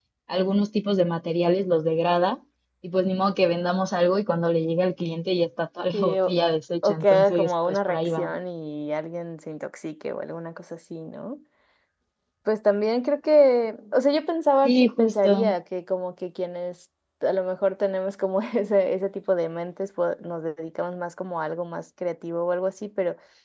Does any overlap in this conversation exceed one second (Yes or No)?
Yes